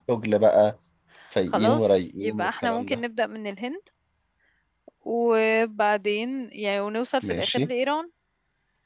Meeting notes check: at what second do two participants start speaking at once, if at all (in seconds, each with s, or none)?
1.5 s